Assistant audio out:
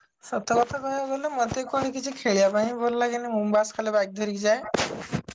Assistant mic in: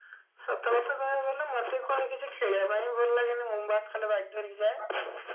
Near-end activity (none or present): none